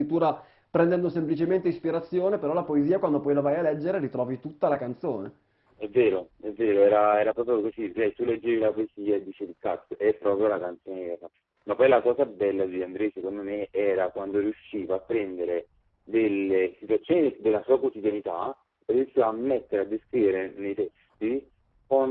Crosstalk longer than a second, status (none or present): none